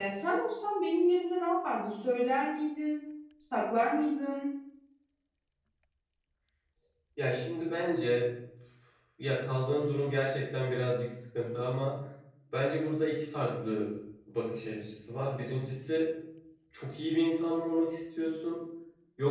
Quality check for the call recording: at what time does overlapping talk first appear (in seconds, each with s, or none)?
none